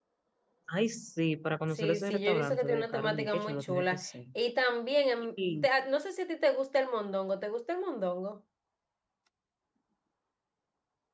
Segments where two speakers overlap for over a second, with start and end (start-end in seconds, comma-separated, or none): 1.7-4.0